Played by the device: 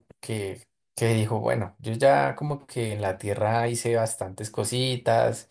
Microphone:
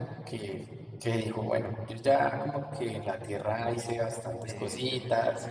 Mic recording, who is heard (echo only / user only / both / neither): both